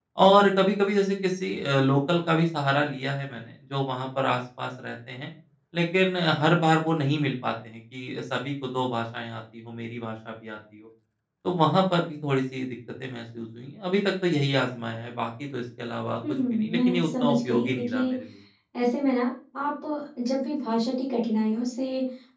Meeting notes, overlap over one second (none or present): present